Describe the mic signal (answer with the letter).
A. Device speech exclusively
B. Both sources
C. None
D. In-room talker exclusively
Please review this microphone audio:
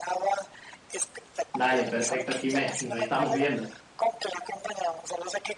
B